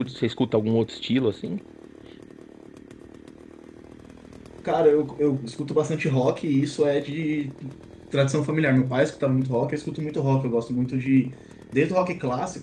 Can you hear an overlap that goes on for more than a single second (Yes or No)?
No